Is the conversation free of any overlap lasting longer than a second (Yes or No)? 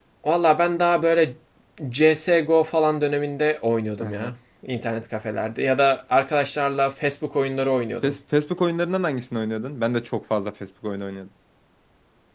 Yes